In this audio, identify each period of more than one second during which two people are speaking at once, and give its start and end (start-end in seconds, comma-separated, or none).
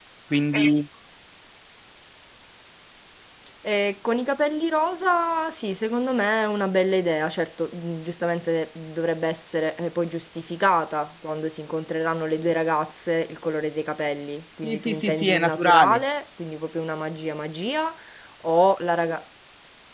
14.6-16.0